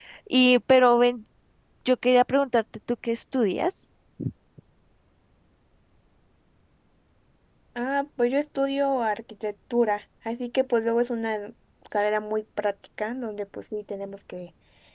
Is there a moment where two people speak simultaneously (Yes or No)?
No